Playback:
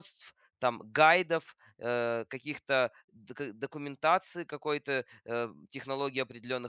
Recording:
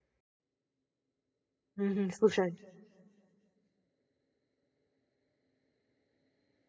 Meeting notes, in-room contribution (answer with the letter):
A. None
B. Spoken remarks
B